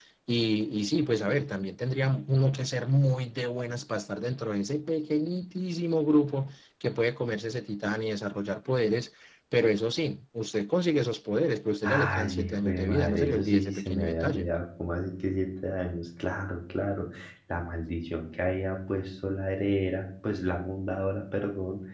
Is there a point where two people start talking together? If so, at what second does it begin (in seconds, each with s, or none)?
11.8 s